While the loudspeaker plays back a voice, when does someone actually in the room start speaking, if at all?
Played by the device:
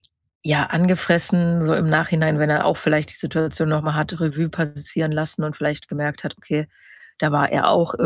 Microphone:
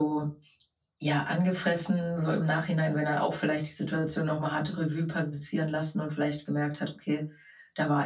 none

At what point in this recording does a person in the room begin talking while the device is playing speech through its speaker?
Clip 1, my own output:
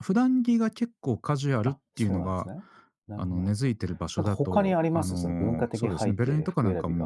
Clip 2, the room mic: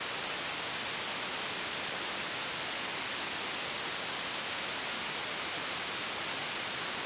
none

